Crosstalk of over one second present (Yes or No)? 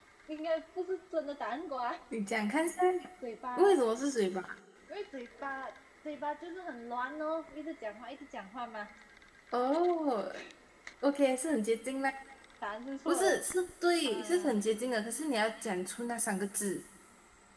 No